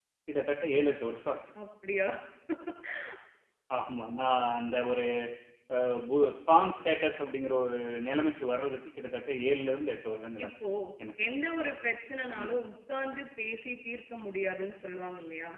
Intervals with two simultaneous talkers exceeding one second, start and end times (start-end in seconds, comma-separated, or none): none